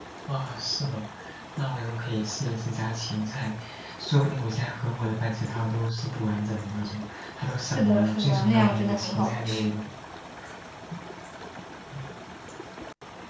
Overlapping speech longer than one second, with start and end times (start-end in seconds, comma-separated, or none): 7.8-9.7